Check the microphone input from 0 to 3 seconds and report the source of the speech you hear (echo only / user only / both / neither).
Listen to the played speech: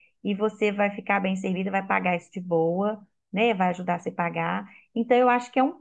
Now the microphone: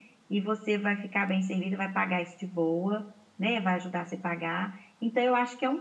echo only